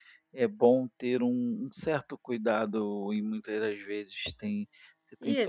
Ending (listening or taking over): taking over